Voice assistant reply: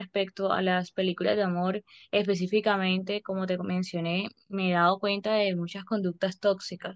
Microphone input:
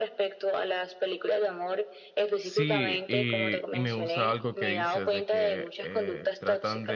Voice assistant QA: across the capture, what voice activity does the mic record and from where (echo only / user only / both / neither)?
both